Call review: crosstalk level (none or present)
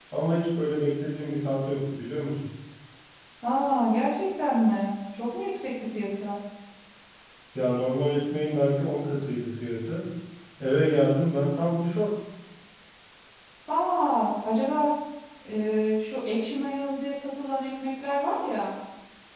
none